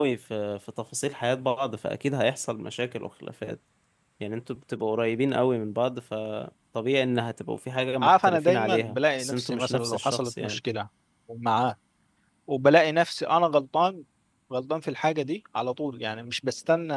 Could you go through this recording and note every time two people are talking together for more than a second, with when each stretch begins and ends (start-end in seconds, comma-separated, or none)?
8.0-10.6